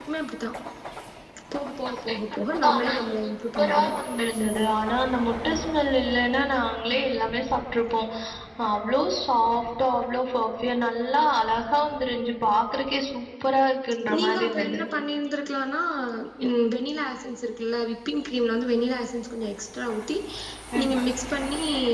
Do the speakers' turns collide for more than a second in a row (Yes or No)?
Yes